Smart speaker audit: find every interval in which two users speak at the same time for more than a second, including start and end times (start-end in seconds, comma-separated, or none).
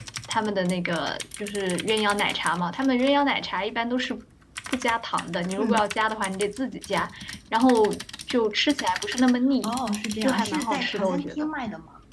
10.2-11.5